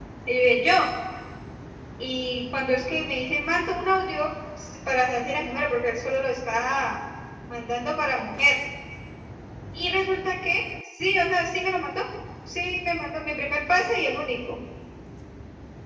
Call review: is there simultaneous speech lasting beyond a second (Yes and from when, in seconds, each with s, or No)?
No